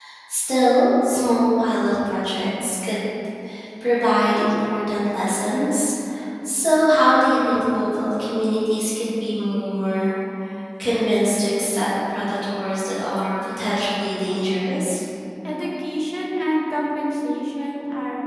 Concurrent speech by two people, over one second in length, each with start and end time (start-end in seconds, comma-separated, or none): none